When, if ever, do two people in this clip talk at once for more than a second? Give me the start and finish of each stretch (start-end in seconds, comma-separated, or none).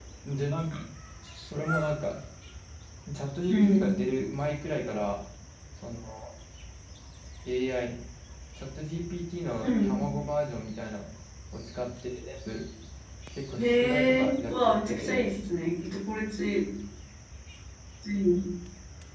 13.6-15.3